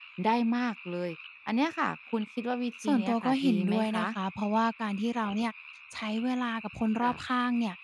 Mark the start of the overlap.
2.8 s

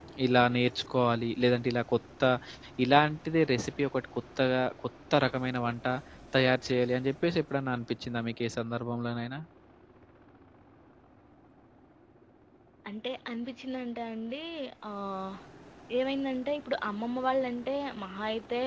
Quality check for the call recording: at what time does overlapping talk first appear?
none

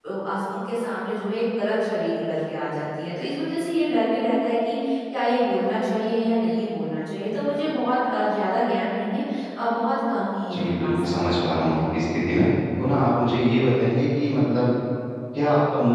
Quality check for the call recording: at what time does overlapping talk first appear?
10.5 s

